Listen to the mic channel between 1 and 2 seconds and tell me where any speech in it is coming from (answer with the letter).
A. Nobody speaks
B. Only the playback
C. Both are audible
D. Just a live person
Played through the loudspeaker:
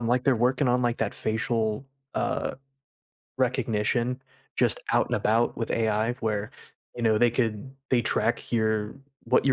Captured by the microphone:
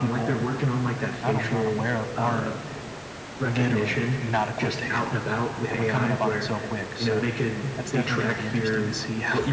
C